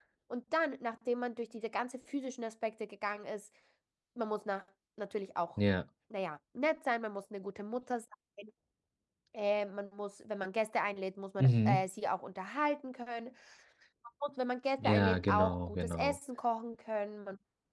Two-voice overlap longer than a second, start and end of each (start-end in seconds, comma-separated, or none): 14.8-16.2